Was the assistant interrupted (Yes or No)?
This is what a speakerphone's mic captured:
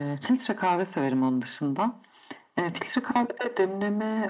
No